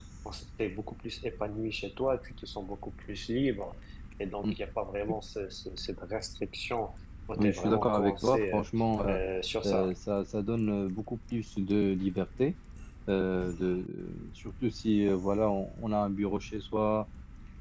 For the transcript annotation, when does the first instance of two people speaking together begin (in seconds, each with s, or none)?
7.4 s